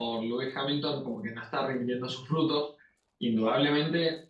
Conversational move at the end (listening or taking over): listening